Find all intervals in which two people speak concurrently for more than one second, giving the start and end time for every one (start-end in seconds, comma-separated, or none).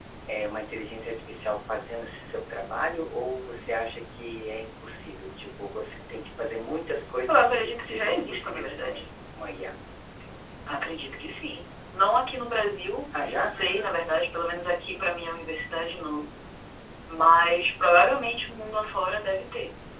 7.3-9.0